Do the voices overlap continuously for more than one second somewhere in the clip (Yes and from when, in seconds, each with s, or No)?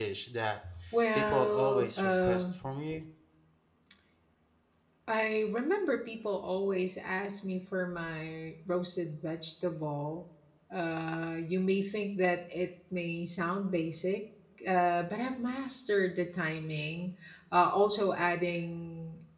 Yes, from 1.2 s